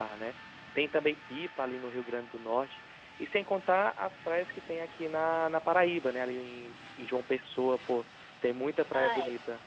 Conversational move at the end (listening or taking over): taking over